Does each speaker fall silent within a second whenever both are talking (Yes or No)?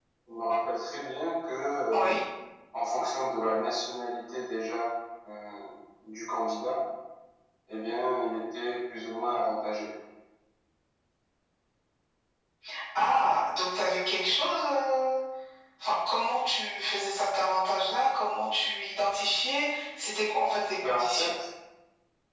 Yes